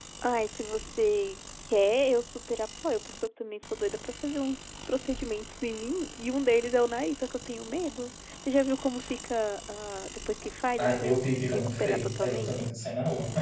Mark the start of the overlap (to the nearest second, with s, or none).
11 s